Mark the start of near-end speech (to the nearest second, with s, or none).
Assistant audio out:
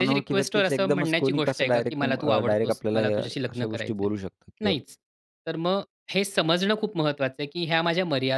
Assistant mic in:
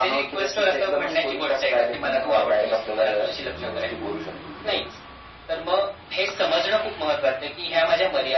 none